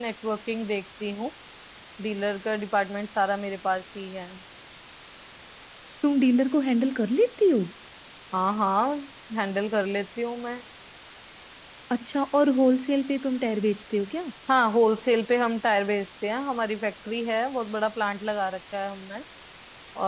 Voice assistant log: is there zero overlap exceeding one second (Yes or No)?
Yes